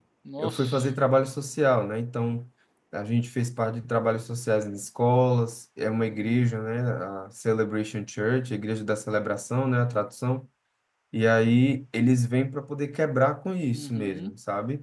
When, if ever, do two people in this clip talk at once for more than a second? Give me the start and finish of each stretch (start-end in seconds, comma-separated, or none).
none